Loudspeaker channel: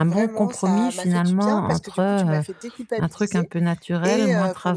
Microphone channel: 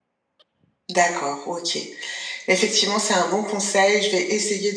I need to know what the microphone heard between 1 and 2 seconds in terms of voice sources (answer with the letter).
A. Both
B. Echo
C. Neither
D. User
D